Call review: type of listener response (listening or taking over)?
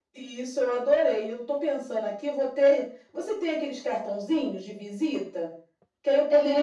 listening